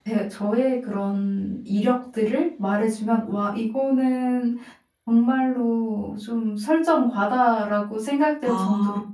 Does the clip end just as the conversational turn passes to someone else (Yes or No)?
No